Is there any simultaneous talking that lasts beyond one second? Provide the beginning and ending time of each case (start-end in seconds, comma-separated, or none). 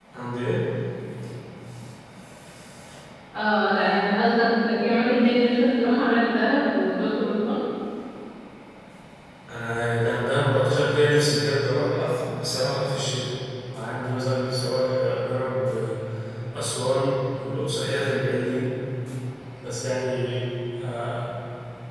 none